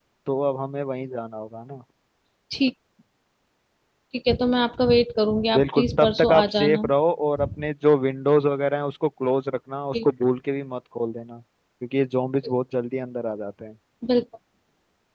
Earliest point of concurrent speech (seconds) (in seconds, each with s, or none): 5.5 s